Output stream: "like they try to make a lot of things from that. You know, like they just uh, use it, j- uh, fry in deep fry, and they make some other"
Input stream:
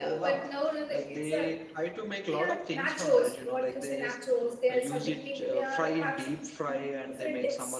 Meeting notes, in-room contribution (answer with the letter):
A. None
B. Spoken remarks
B